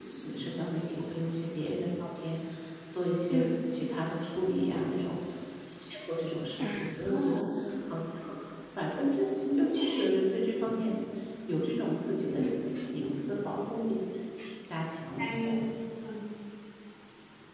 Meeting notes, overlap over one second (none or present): none